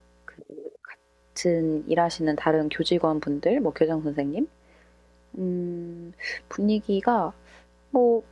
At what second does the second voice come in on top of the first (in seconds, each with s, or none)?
none